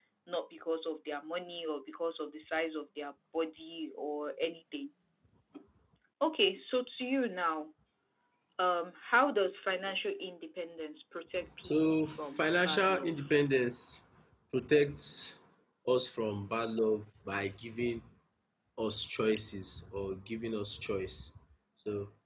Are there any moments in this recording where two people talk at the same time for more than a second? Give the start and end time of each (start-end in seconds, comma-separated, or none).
11.7-13.2